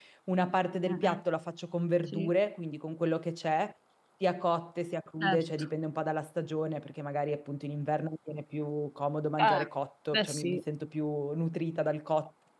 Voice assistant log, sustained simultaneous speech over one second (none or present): none